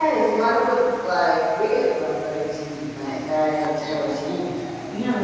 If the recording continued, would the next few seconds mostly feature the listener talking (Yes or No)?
Yes